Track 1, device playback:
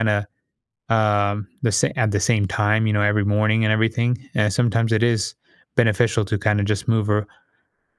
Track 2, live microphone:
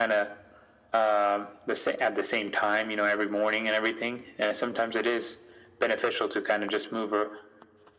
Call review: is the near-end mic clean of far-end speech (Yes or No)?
No